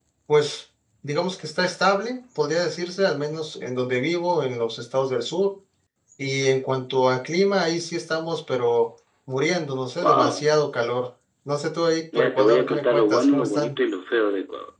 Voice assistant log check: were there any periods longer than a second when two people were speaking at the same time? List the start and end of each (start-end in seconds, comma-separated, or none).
12.2-13.7